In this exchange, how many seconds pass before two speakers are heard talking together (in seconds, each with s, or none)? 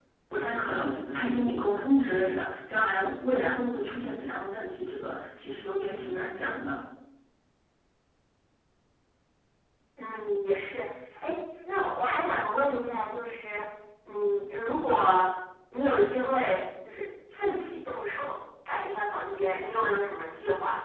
none